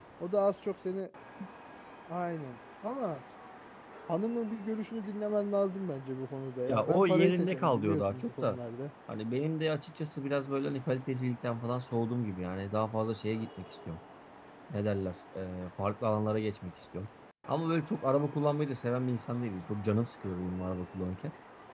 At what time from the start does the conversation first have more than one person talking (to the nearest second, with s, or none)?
7 s